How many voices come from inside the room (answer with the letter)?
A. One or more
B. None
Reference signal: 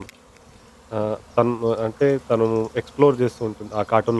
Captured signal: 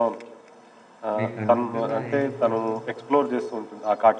A